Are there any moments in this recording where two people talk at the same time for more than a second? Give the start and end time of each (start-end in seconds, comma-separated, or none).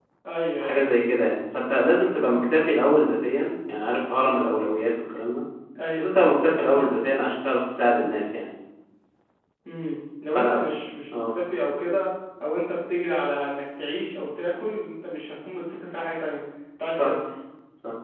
none